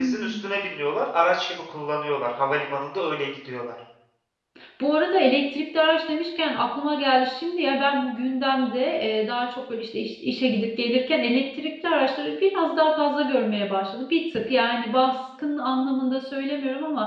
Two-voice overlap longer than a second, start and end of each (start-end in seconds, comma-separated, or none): none